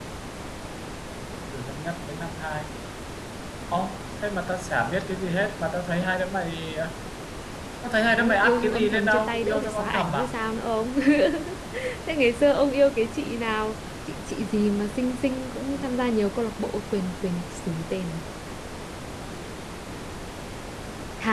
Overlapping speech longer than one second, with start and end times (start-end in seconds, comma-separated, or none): 8.1-10.3